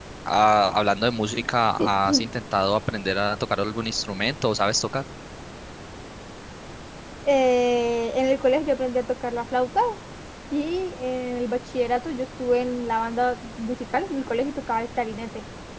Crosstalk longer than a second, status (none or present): none